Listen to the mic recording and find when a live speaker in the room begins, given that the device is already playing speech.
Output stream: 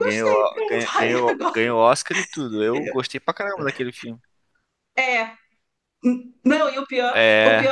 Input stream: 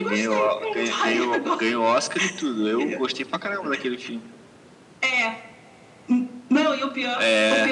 none

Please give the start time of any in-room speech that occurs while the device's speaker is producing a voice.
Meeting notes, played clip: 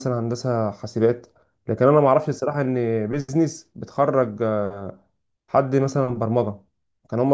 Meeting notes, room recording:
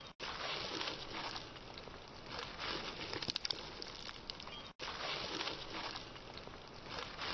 none

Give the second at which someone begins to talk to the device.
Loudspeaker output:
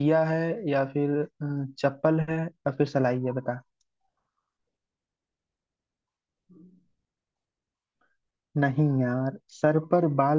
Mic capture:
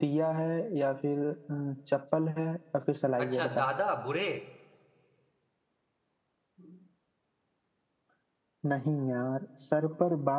3.2 s

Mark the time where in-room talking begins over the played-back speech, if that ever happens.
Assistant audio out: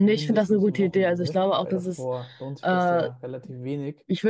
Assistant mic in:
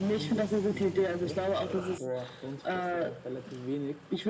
none

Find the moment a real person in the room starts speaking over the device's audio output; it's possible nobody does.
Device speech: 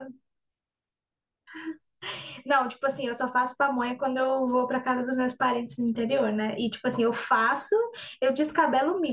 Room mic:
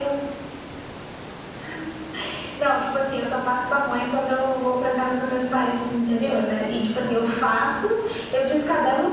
none

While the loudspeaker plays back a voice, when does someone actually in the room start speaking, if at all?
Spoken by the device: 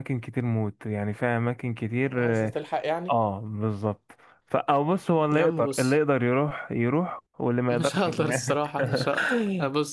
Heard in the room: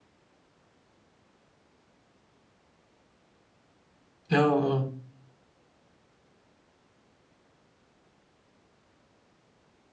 4.3 s

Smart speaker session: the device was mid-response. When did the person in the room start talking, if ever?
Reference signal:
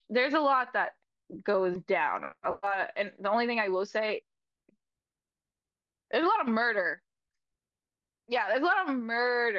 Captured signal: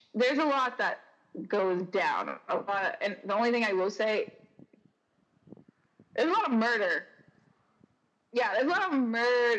none

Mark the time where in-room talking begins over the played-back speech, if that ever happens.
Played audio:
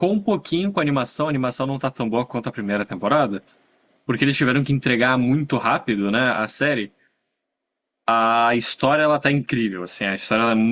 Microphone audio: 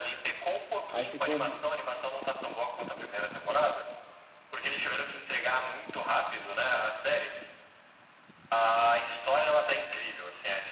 0.9 s

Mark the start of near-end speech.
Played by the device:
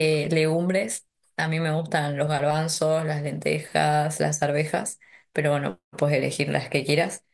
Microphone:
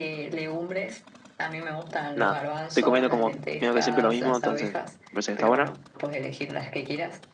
2.2 s

